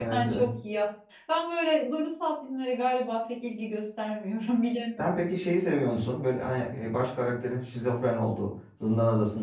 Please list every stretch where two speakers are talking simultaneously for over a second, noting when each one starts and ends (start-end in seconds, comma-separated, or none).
none